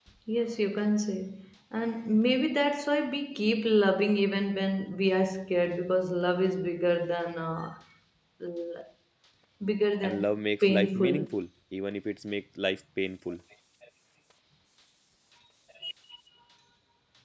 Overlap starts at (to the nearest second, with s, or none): 10 s